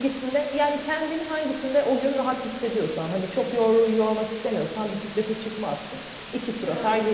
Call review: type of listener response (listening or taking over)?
taking over